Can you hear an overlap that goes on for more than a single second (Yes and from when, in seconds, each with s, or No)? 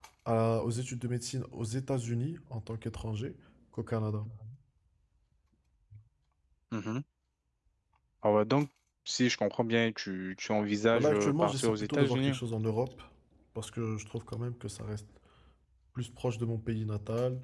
Yes, from 10.9 s